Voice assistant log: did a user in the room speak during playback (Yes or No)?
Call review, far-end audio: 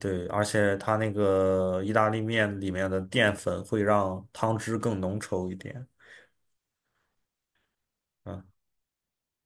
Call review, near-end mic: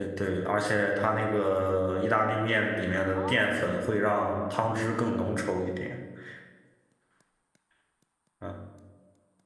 Yes